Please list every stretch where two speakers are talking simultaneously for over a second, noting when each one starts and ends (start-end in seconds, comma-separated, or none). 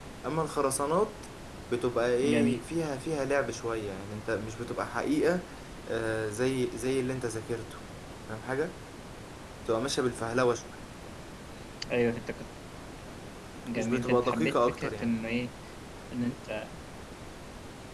13.8-15.1